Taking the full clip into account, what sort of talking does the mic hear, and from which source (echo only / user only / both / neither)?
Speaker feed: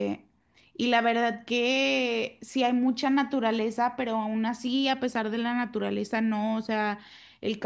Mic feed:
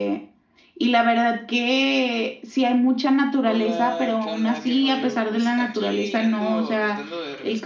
both